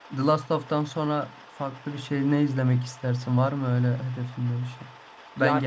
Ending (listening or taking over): listening